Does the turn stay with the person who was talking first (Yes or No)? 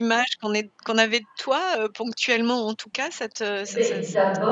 No